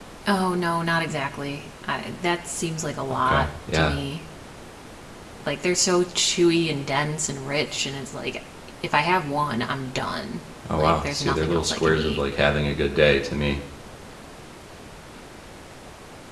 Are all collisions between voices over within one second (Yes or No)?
No